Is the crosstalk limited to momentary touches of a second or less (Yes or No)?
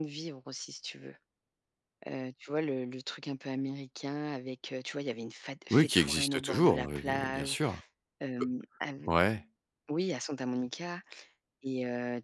No